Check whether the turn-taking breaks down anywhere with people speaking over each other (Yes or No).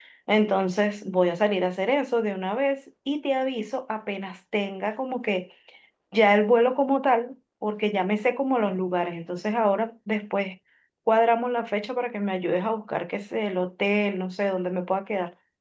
No